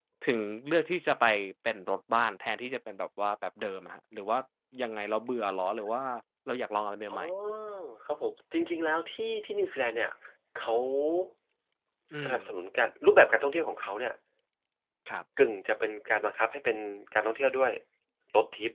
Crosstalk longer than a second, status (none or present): none